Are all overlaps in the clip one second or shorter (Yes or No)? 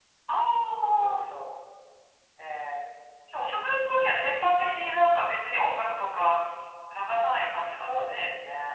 Yes